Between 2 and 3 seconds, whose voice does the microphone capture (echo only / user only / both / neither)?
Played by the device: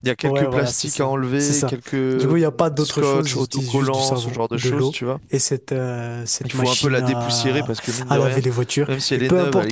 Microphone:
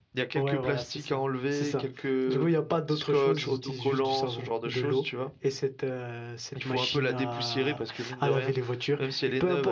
echo only